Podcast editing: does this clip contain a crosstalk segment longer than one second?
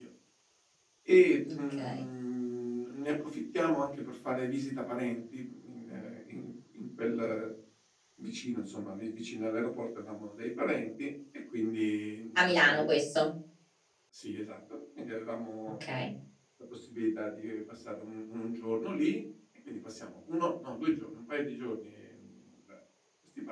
No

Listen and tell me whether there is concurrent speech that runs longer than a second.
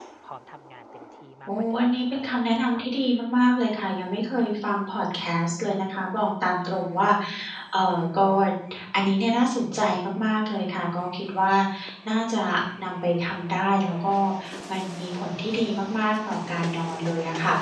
Yes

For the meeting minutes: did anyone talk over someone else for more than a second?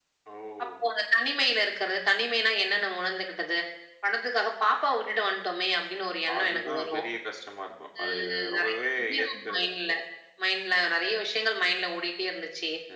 Yes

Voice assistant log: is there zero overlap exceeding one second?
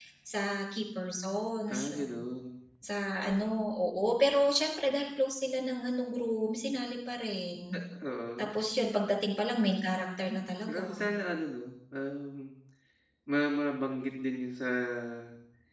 Yes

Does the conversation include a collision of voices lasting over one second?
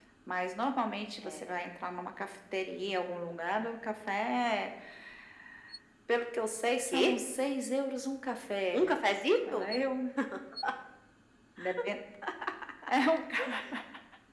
No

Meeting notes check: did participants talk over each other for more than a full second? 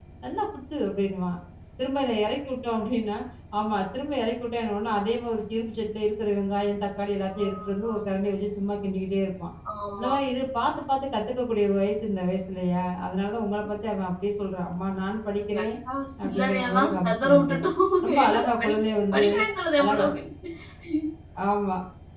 Yes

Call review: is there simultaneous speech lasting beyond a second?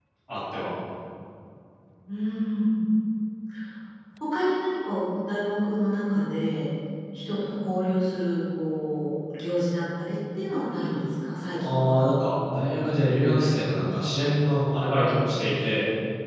No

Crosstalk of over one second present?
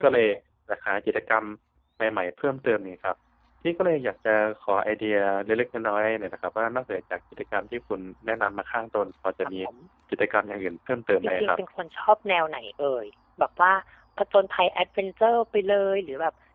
No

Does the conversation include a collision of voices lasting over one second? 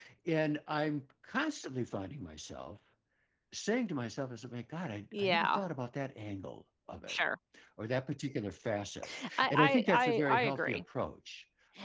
Yes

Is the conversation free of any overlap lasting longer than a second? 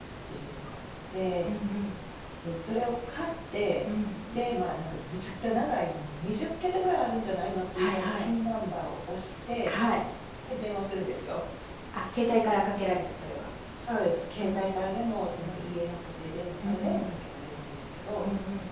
Yes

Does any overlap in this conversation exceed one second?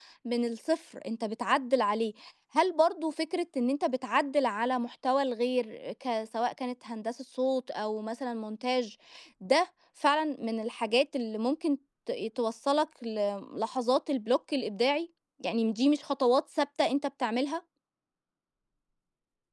No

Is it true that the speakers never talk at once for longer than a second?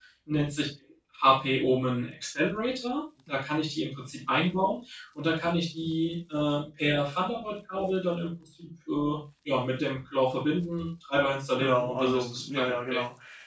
No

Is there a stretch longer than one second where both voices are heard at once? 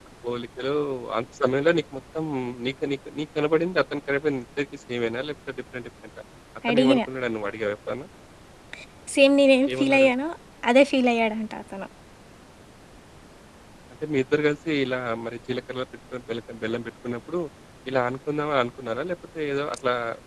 No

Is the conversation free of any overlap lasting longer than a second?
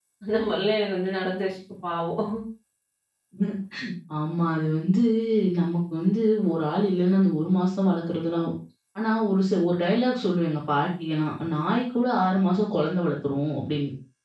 Yes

